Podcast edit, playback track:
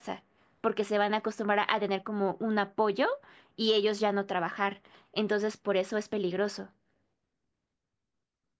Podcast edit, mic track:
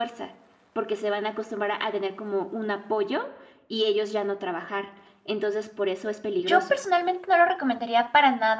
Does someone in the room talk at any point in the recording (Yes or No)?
Yes